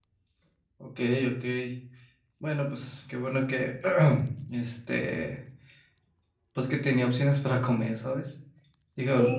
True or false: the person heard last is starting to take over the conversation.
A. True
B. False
A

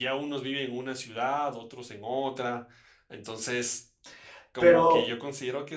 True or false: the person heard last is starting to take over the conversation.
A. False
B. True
A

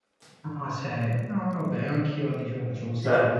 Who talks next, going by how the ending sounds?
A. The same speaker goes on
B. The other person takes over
B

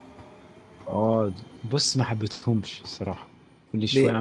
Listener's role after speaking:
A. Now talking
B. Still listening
B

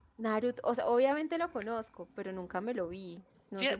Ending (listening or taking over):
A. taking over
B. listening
A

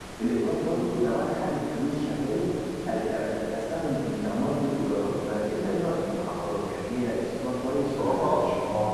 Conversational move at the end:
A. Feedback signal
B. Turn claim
B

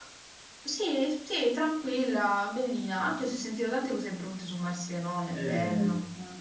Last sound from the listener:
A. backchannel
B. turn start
B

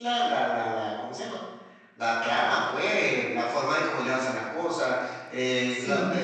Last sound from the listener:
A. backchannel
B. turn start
A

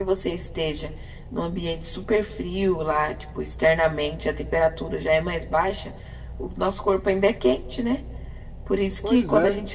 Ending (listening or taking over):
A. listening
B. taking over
A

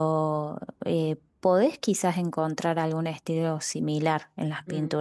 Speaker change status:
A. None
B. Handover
A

